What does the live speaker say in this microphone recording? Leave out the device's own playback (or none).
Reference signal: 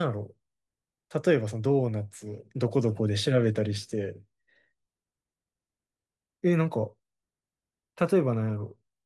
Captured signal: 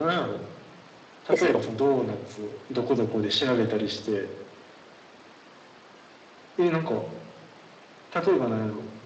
ですよ。